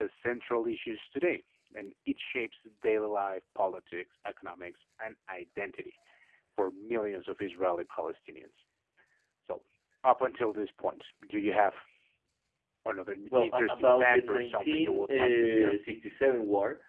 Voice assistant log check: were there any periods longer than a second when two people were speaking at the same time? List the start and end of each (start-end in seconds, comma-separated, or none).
13.3-15.8